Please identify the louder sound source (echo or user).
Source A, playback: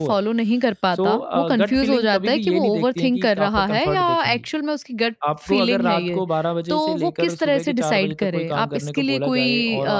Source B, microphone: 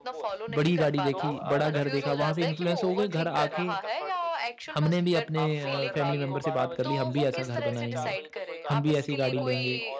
user